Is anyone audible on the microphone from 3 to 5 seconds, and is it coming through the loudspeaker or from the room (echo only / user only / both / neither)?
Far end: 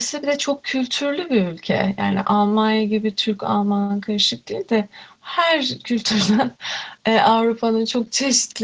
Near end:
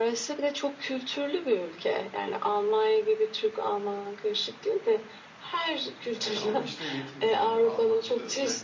echo only